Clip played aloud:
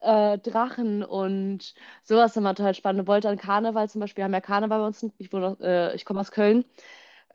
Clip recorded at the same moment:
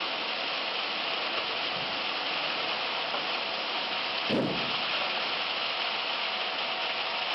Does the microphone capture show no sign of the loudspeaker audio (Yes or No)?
Yes